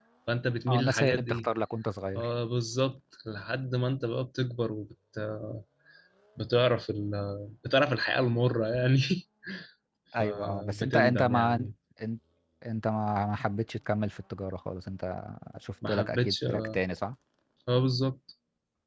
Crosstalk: present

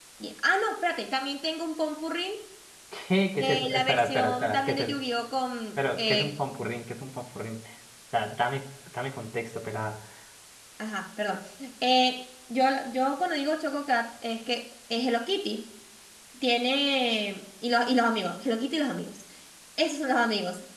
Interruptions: present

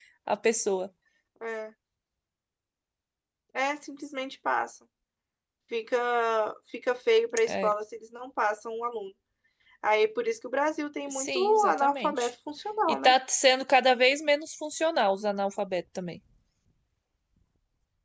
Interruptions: present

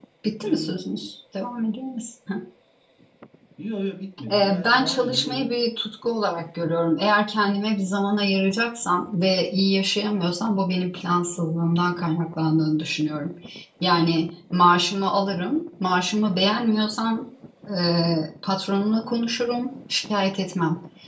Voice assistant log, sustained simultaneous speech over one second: present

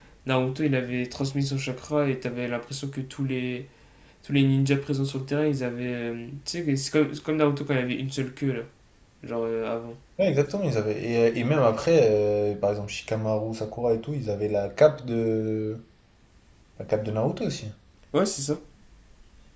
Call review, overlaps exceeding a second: none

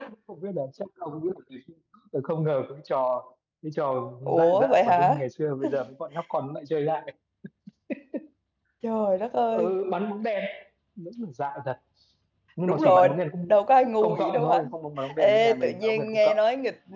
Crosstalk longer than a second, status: present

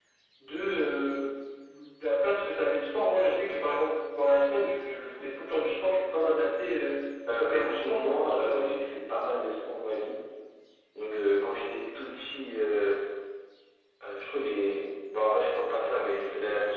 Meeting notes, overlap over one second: present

